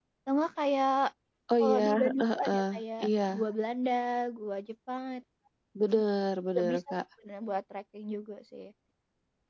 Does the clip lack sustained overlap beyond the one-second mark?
No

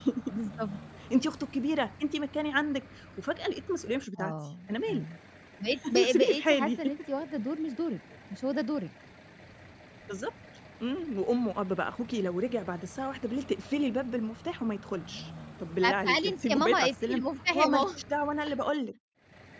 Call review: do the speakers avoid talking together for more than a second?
No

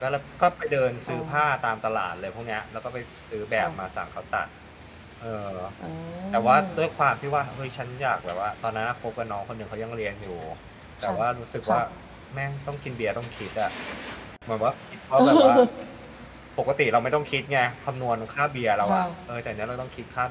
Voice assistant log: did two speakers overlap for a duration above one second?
No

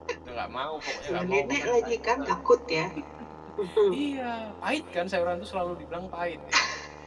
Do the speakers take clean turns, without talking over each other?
No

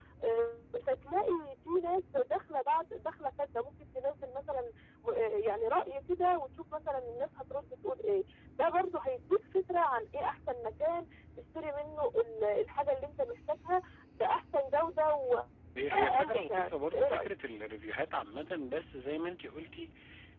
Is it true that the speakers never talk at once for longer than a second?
No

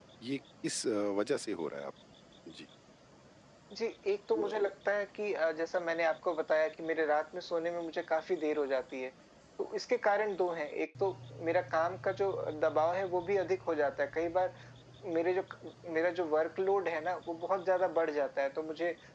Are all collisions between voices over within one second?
Yes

